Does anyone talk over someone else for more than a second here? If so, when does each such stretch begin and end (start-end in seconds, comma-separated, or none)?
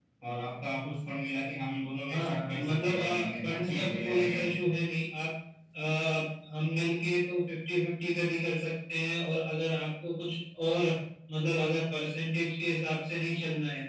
2.1-4.6